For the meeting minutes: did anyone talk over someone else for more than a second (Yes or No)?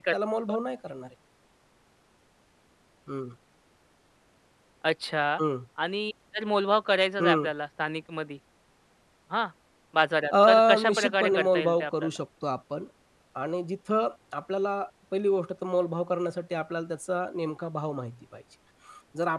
Yes